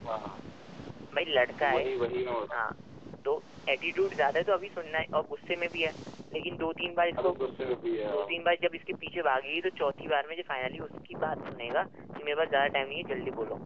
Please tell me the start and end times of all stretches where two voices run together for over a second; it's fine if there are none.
none

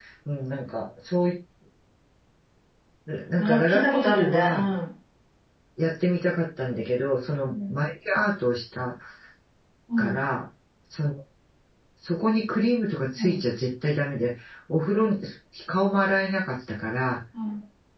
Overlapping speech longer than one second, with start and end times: 3.4-4.7

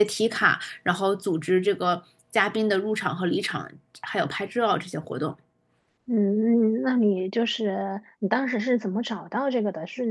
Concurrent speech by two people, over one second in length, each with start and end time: none

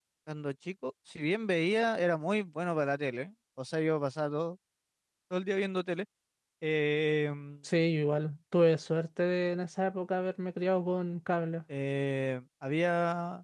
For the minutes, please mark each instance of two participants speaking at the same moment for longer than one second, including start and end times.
none

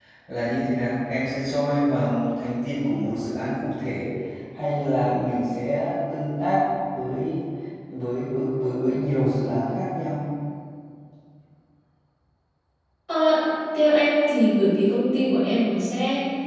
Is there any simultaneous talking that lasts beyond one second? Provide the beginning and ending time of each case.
none

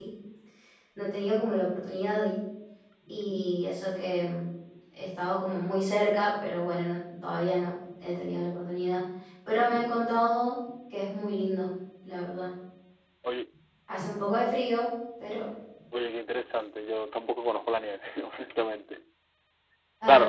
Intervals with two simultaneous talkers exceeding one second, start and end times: none

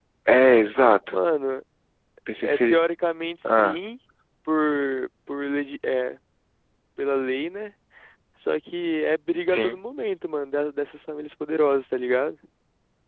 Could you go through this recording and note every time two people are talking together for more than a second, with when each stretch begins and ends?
none

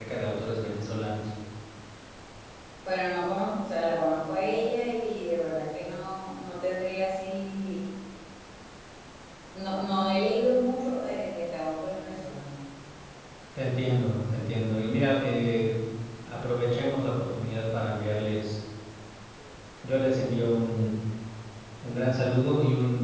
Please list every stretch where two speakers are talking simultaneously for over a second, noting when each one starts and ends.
none

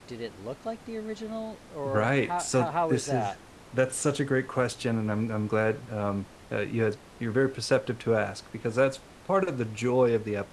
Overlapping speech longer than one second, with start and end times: 1.8-3.3

